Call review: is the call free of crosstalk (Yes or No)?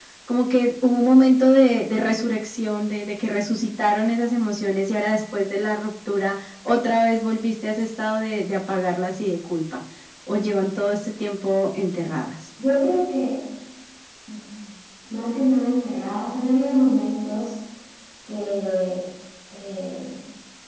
Yes